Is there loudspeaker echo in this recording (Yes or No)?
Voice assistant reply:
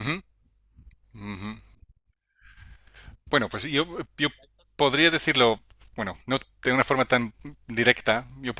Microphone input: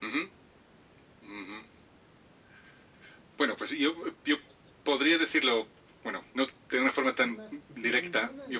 Yes